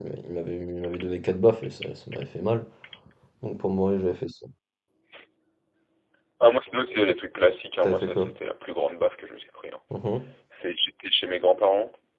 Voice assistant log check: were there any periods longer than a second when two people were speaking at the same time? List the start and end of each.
none

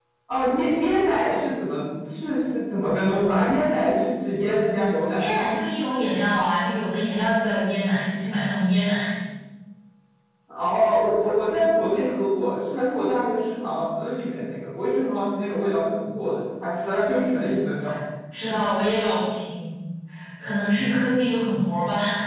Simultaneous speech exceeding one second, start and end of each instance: none

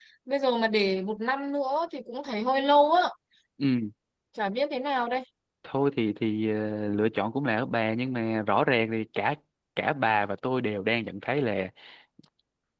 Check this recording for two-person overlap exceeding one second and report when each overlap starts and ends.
none

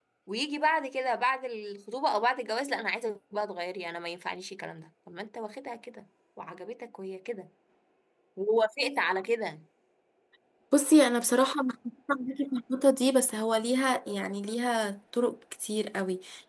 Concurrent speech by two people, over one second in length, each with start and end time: none

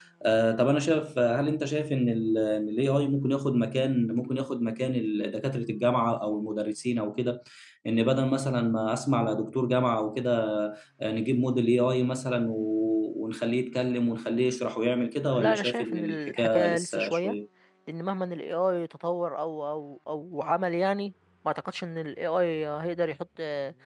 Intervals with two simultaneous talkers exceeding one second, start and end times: 15.3-17.4

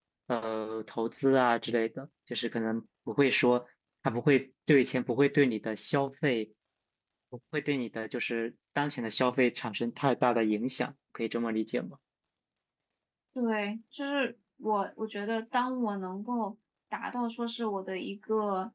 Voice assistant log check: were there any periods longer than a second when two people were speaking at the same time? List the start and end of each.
none

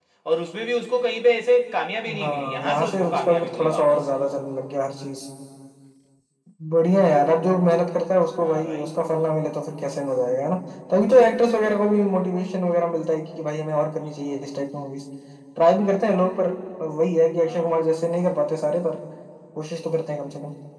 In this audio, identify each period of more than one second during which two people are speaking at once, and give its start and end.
2.2-4.0

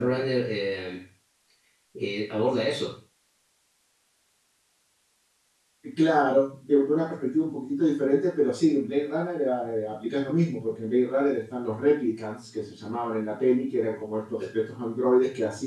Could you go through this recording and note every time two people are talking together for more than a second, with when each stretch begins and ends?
none

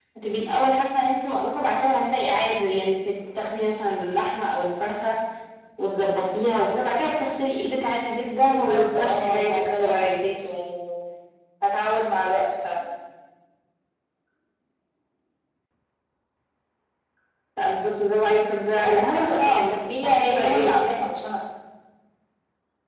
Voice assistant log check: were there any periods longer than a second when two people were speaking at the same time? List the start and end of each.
8.5-10.1, 18.7-20.8

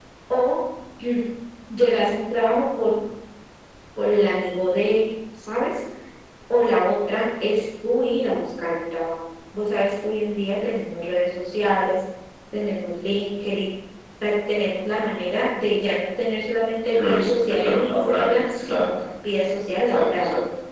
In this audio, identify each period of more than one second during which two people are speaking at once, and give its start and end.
16.9-18.9

